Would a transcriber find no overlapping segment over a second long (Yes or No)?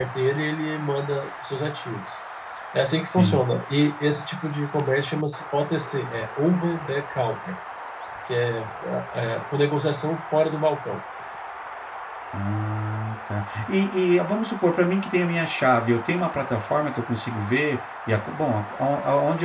Yes